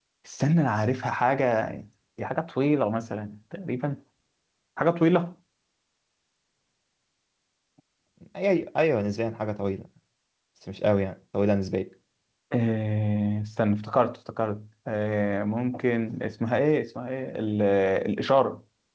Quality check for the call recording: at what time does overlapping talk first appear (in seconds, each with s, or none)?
none